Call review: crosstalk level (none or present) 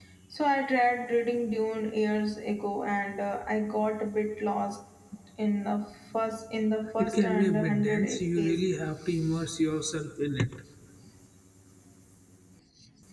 present